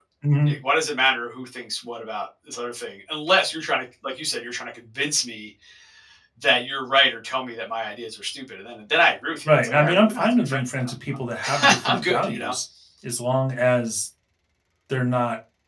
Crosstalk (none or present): present